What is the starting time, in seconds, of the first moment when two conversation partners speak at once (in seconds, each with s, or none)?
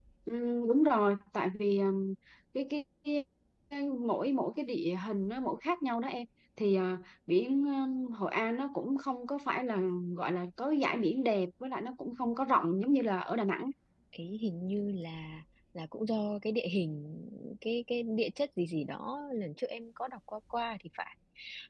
none